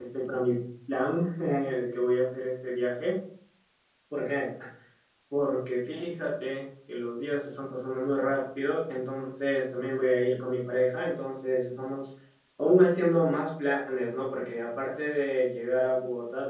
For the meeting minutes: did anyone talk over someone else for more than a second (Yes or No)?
No